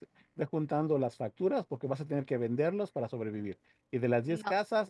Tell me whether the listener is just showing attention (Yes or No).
Yes